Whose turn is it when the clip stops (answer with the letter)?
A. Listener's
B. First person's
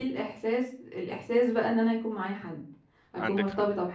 B